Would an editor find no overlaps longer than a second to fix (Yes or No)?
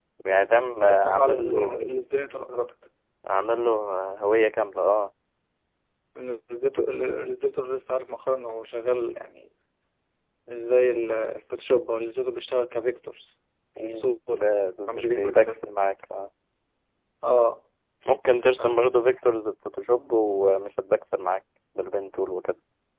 No